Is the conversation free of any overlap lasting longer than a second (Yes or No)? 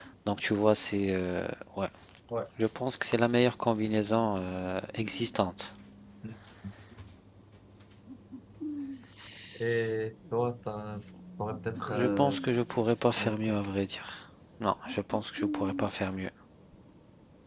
Yes